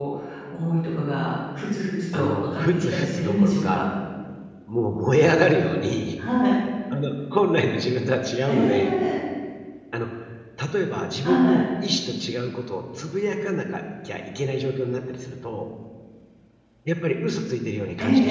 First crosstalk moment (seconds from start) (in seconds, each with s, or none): 2.1 s